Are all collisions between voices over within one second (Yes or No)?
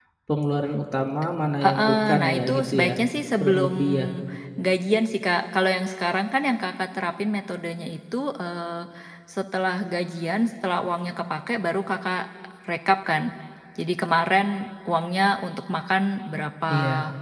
No